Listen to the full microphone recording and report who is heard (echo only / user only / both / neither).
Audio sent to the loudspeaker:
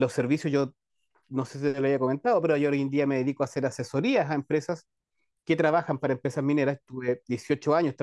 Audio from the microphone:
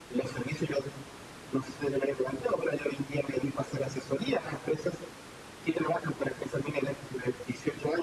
echo only